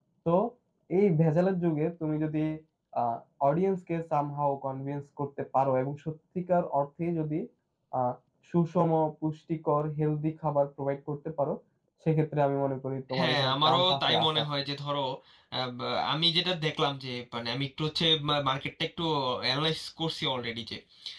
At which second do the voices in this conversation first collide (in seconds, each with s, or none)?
13.1 s